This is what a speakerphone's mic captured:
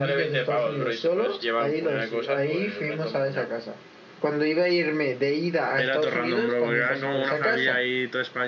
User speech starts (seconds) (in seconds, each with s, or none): 5.7 s